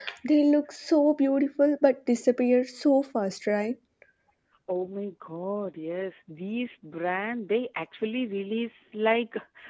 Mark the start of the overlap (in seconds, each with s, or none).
none